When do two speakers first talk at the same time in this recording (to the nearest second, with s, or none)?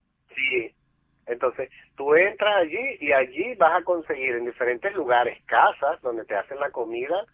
none